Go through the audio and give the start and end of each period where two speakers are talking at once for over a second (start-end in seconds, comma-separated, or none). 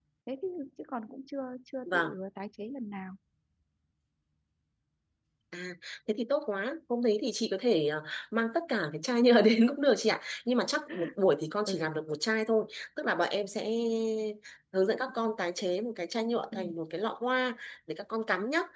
none